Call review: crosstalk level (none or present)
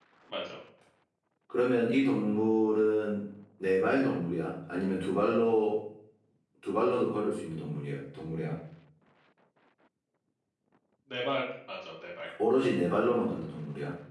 none